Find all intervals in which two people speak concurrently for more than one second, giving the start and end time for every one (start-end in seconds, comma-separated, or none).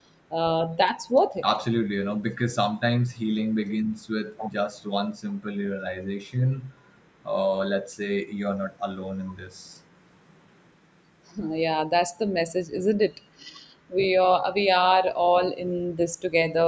none